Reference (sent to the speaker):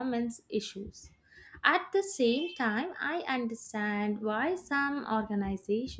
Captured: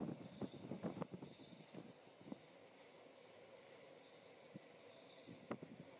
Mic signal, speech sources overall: neither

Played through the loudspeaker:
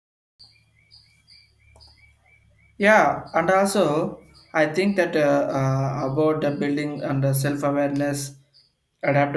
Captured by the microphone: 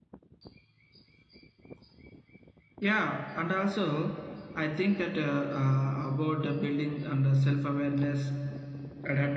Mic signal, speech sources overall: echo only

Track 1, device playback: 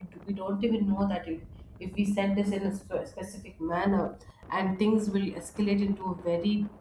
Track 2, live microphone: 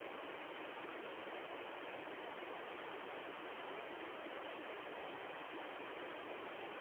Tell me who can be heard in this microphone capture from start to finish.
neither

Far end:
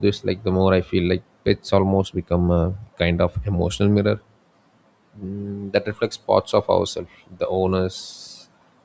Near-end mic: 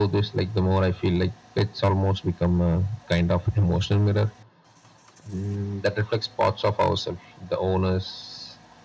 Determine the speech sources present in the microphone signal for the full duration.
echo only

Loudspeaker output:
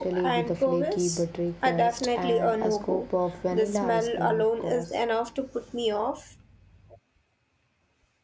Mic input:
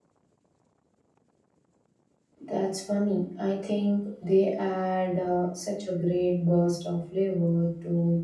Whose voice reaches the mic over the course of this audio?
user only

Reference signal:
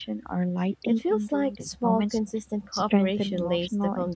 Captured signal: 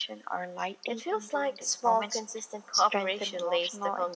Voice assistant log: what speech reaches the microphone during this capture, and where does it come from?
echo only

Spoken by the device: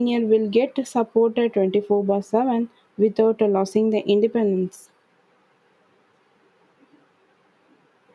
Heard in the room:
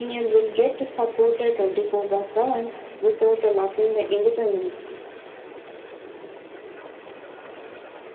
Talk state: echo only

